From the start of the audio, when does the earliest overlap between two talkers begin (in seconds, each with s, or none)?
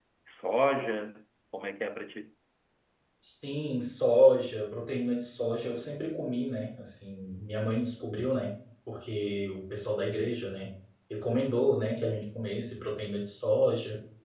none